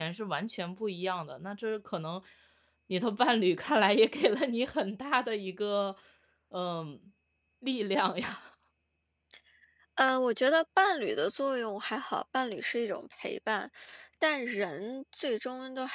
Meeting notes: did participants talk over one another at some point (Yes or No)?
No